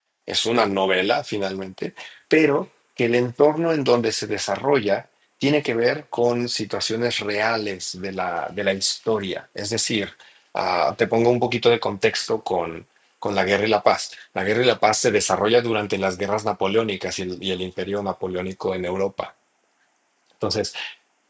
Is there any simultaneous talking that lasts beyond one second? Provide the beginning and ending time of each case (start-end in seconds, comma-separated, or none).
none